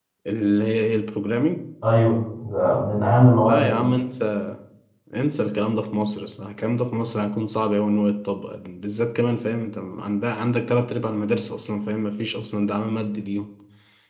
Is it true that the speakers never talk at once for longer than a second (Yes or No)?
Yes